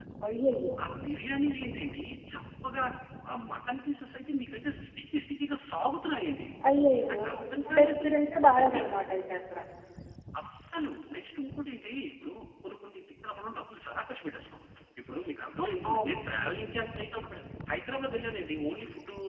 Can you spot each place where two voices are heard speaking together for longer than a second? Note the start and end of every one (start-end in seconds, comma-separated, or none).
none